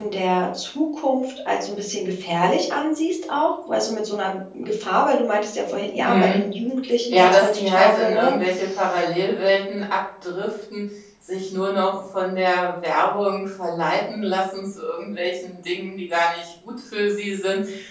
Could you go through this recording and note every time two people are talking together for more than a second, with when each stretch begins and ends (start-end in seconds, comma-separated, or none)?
7.1-8.3